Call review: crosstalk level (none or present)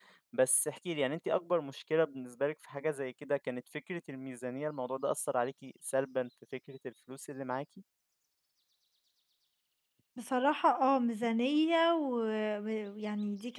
none